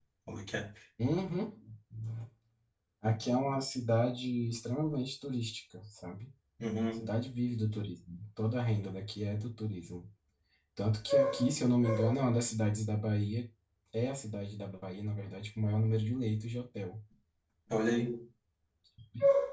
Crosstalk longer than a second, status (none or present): none